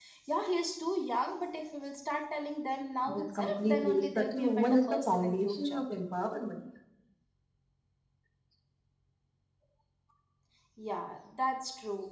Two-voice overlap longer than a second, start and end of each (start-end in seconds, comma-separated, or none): 3.0-5.8